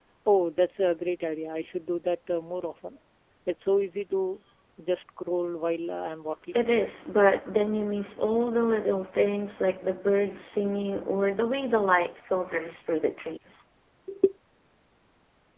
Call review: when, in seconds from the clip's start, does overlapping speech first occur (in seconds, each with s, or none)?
none